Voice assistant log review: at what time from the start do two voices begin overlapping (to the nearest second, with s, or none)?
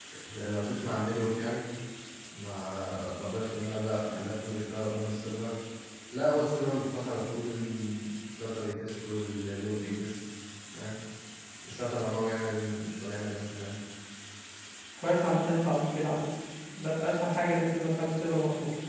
none